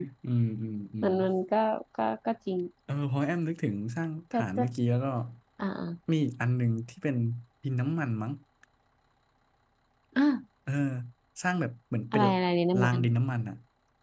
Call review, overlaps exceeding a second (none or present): none